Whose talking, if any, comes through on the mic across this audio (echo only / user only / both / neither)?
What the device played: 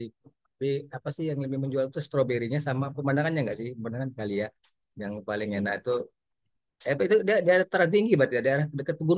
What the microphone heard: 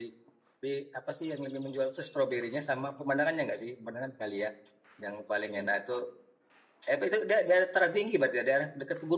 echo only